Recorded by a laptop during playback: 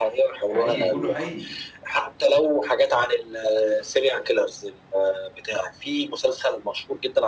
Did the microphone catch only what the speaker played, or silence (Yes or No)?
No